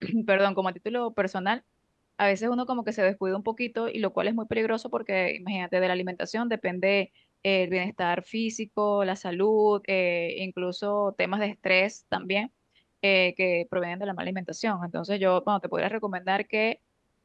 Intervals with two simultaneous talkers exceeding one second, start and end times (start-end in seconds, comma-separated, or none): none